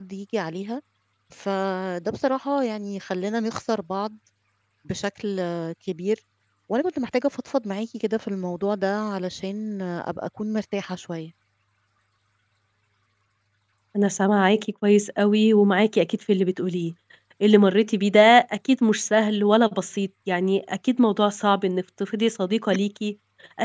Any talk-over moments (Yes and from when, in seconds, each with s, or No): No